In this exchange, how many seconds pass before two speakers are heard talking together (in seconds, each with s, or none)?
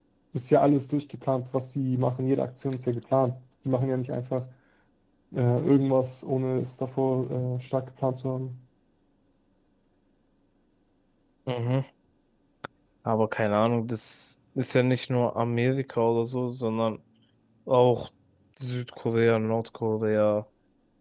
none